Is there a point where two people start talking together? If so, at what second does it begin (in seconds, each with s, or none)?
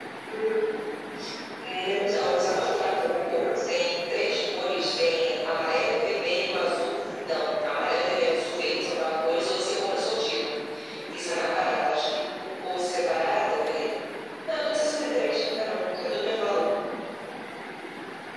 1.9 s